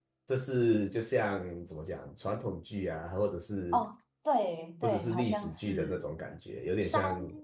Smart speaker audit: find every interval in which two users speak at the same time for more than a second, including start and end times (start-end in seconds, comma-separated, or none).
4.8-6.1